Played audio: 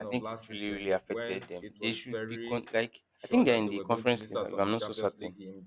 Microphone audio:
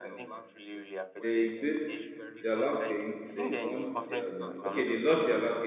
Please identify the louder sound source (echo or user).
user